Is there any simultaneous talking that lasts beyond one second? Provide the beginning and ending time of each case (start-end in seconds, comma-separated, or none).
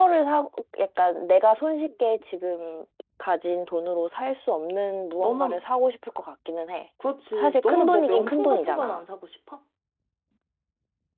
7.4-9.0